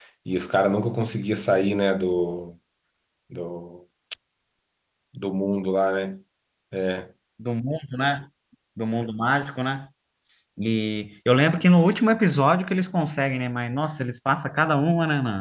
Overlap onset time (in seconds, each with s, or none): none